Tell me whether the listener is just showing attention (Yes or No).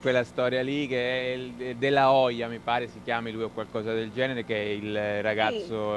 Yes